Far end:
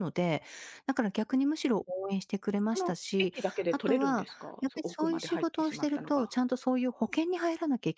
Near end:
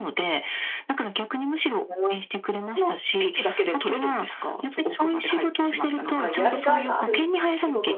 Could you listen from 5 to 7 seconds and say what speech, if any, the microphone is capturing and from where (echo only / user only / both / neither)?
both